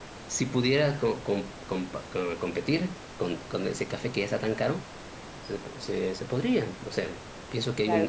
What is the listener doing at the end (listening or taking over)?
taking over